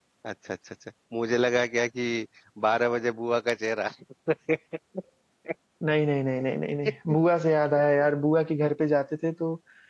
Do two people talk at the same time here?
No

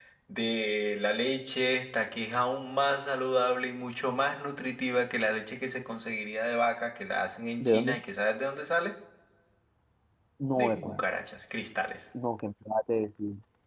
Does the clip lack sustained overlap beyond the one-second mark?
Yes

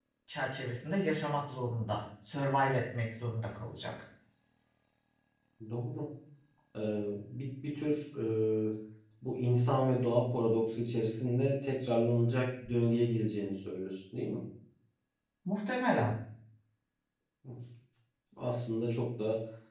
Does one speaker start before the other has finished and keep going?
No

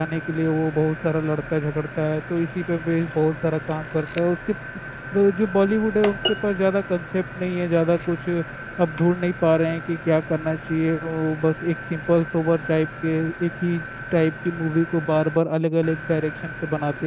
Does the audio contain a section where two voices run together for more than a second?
No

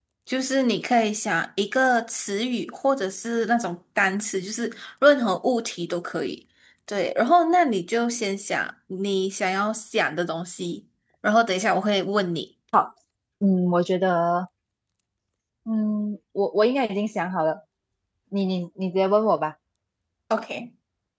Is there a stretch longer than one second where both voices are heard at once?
No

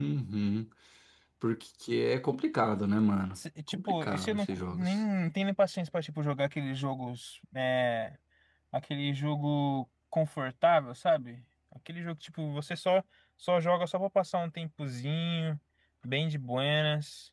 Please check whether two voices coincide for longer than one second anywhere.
Yes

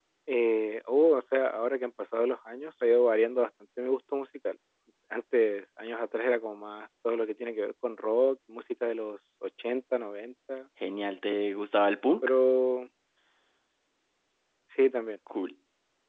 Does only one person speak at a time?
Yes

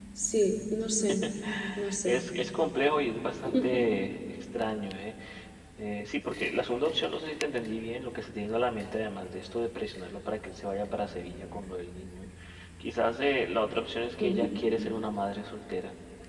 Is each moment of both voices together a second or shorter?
Yes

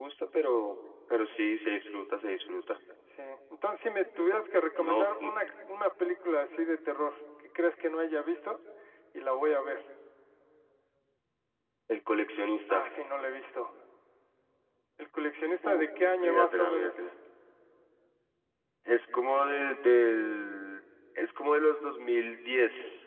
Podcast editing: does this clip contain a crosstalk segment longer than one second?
Yes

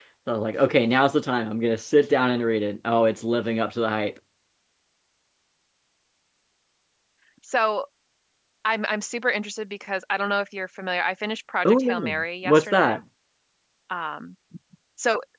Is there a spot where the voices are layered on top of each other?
Yes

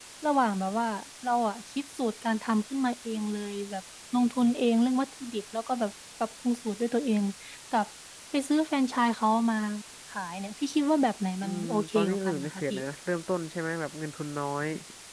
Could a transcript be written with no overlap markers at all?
No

